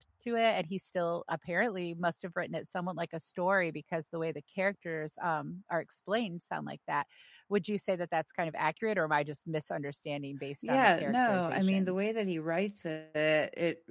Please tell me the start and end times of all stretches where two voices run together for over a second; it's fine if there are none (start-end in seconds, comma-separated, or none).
10.6-11.9